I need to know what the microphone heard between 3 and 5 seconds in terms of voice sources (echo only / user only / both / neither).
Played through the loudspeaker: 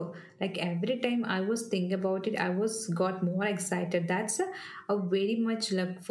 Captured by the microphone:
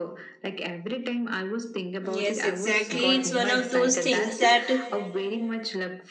both